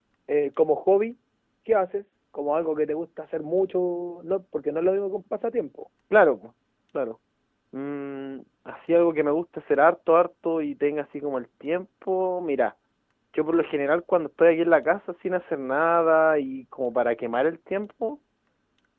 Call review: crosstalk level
none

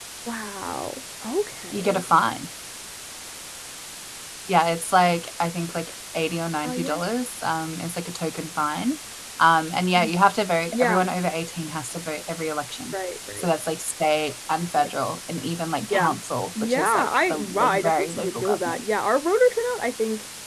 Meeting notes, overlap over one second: present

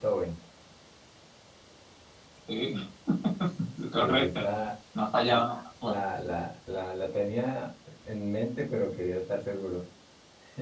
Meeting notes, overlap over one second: none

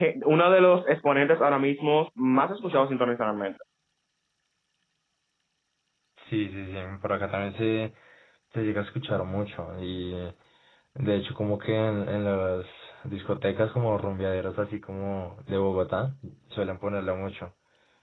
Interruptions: none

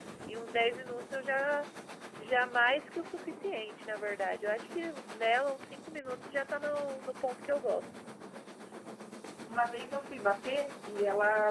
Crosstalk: none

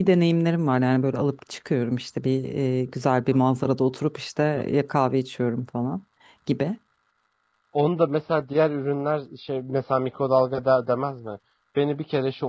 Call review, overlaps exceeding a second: none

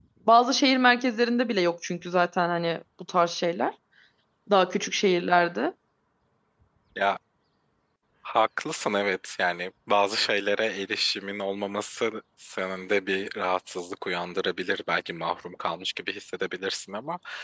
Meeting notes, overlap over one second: none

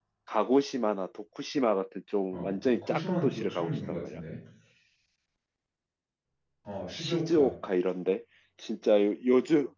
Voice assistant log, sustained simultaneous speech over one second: present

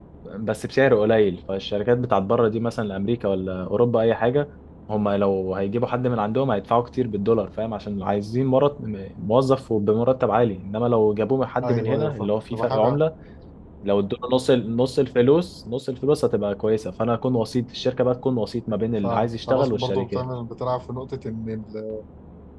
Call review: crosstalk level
present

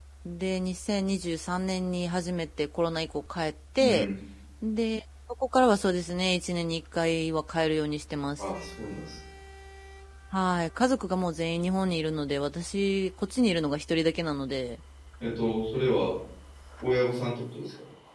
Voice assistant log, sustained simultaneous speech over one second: none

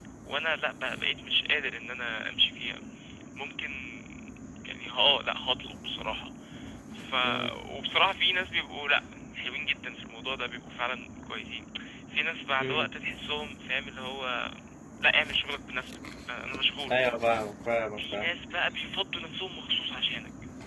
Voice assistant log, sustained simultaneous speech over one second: none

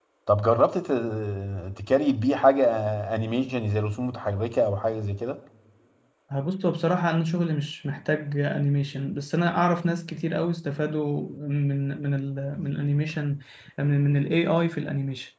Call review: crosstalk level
none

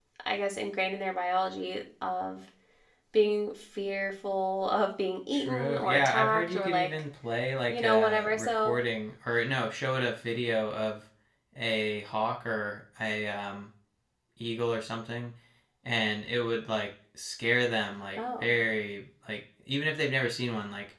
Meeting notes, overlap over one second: present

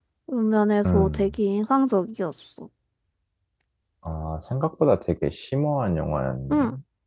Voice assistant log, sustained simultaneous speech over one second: none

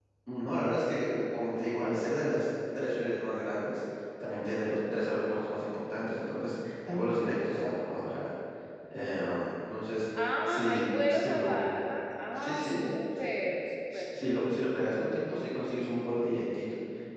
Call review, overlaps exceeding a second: present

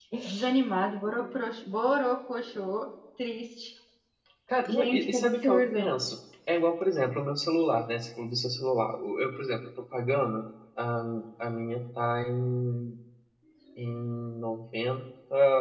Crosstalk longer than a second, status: present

